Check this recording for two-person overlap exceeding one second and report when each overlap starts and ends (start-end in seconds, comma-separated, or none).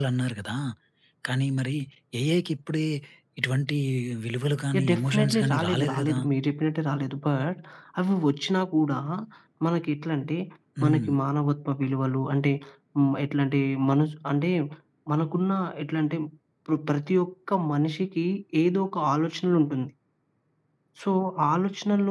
4.8-6.2